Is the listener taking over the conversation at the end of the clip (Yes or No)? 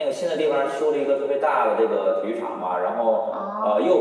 No